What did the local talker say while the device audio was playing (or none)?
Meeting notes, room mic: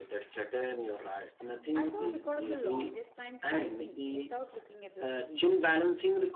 I saw a record of the longest time typing without looking at the screen.